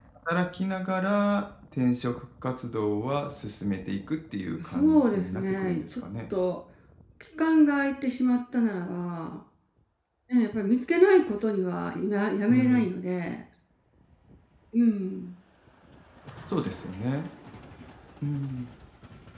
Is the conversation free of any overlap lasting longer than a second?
No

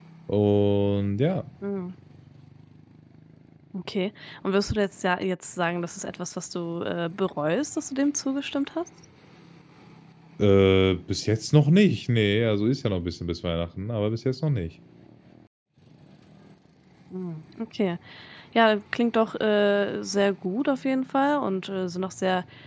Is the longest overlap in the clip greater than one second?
No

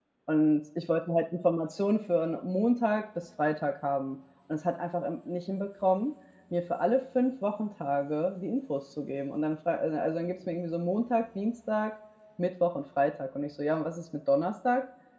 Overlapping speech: No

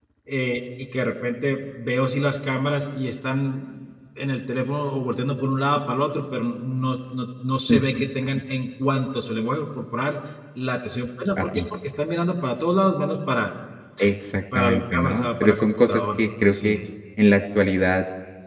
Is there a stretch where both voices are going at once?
Yes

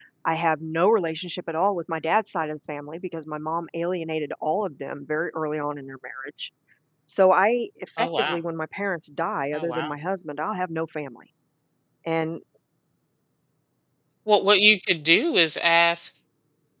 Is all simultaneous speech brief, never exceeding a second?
Yes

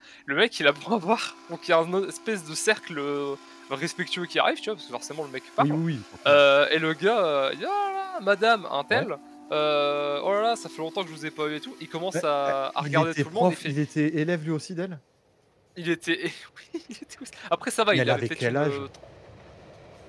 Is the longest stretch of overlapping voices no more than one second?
No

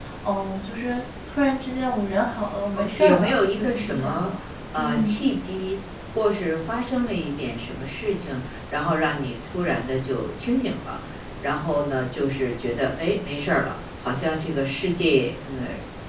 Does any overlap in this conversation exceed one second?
Yes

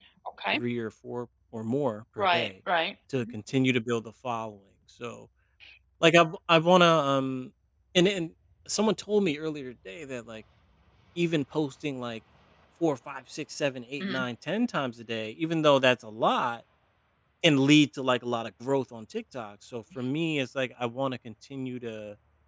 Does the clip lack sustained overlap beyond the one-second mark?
Yes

